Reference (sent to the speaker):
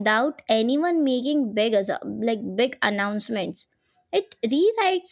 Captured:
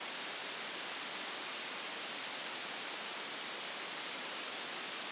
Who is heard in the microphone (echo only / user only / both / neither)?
neither